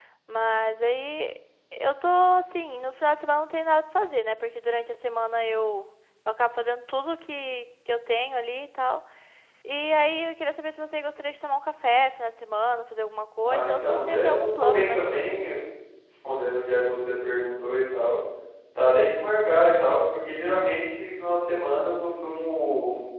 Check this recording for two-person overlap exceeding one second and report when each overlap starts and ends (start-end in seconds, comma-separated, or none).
13.4-15.0